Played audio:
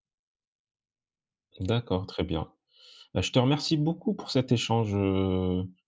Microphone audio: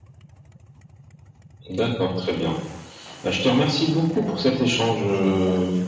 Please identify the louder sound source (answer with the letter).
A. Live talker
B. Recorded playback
B